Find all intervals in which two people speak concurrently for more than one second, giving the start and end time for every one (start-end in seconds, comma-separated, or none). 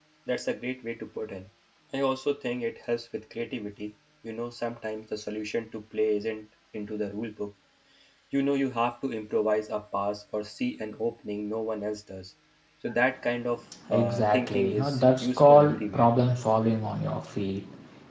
13.9-16.1